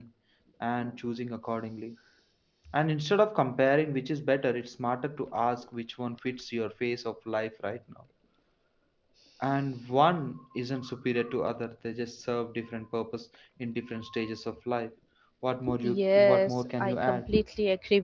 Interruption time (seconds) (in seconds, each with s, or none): 15.8 s